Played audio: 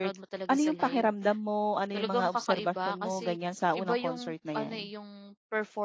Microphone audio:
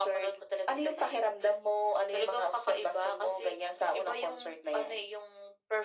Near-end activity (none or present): none